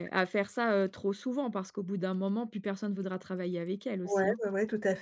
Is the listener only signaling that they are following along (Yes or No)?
No